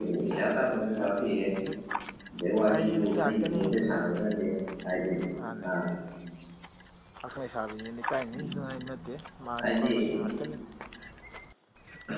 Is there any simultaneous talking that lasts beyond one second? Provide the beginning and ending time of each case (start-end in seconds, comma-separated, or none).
2.7-4.0